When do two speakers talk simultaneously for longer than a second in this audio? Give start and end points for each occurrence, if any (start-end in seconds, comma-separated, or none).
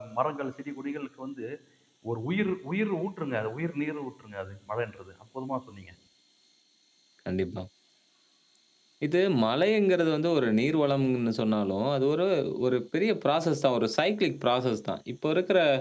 none